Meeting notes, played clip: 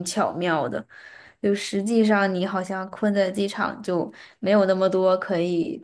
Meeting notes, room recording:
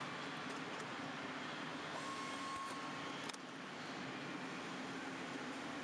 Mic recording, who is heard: neither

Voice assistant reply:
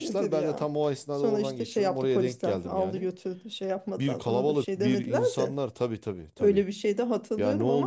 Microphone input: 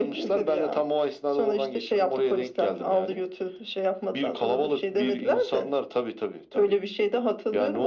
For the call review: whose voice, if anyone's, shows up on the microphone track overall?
echo only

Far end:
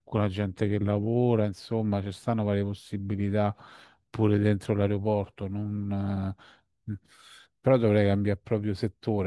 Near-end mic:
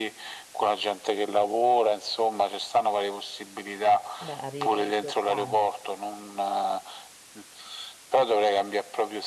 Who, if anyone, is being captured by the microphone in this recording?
both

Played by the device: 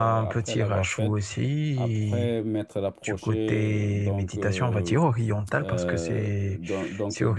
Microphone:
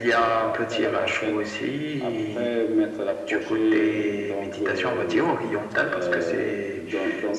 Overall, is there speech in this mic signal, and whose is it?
echo only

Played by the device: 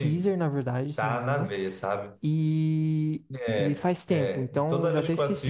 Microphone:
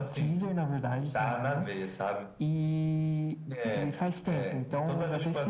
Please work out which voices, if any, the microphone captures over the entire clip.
echo only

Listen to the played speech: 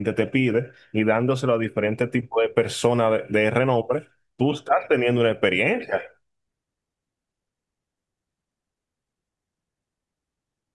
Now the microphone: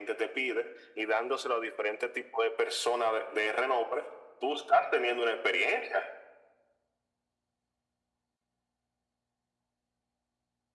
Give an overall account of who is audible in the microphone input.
echo only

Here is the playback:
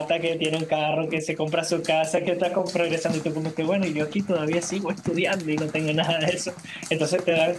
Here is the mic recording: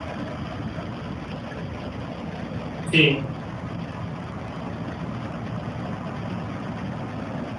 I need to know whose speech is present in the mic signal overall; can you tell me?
user only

